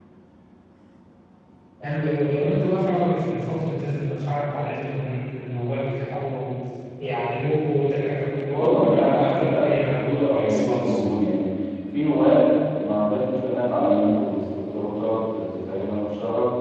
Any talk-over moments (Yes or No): Yes